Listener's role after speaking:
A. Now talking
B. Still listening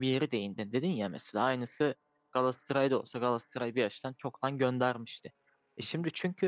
B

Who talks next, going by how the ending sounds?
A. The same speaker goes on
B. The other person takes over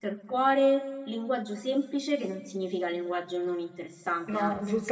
B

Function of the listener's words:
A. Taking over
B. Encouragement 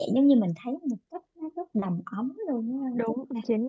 A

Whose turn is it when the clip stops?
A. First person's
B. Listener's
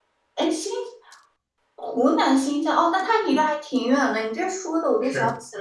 A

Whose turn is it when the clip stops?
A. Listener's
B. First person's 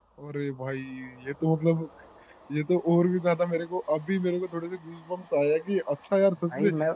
B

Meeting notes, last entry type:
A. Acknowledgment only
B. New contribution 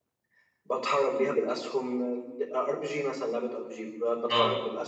A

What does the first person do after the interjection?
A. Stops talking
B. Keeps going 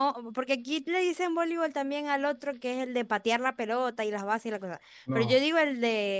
B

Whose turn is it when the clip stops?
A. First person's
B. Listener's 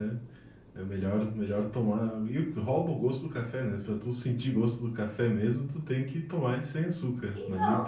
B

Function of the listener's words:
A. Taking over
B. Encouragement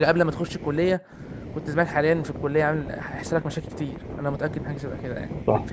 A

